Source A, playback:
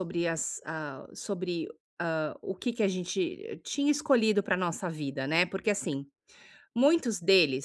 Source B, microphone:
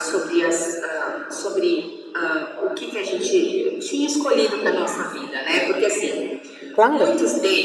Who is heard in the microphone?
both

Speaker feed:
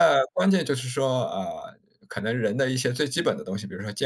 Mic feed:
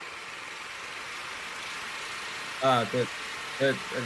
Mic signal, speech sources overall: user only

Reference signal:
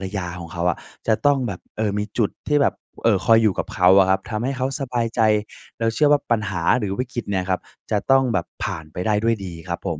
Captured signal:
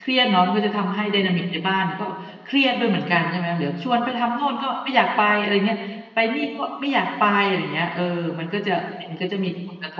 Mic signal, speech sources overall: user only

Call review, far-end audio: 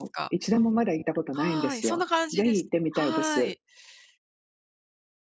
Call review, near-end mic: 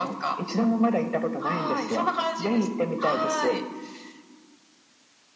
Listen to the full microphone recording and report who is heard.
echo only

